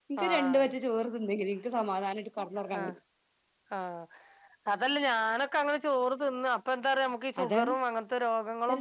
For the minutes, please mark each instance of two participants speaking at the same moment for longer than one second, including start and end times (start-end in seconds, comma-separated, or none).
none